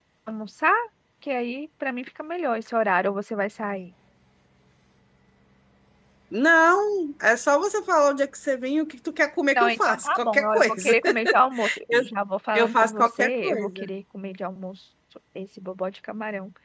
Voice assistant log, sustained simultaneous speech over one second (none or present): present